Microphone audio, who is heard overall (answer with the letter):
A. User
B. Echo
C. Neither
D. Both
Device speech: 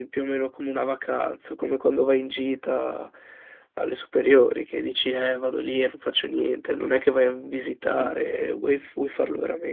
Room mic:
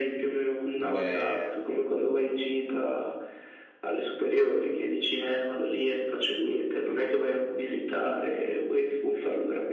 D